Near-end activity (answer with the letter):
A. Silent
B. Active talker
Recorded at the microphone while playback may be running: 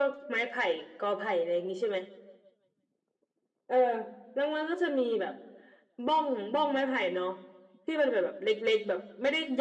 A